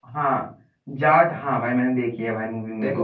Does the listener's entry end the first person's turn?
Yes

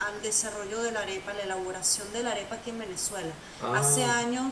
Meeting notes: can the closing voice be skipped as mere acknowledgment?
Yes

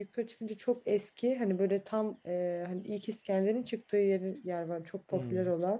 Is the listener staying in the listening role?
Yes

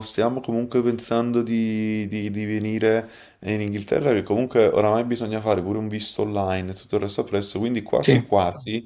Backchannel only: Yes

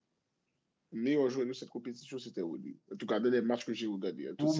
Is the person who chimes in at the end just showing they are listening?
No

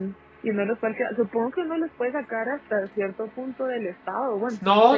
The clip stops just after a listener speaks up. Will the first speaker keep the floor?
No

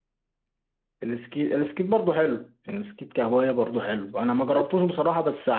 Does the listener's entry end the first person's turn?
No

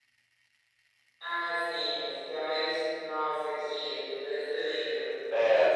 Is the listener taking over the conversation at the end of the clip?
Yes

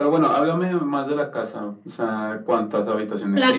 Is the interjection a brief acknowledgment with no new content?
No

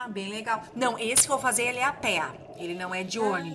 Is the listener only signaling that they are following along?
Yes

